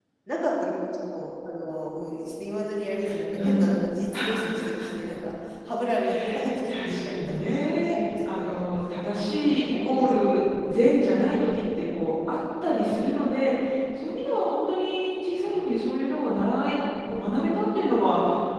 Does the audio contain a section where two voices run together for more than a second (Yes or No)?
Yes